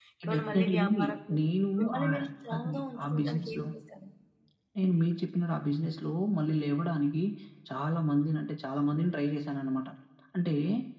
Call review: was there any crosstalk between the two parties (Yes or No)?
Yes